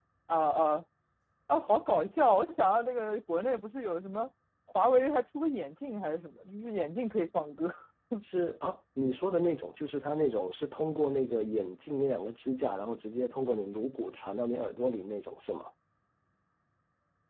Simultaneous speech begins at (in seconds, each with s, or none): none